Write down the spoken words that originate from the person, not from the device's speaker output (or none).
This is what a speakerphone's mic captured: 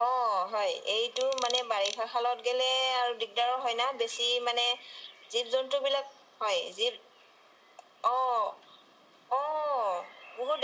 none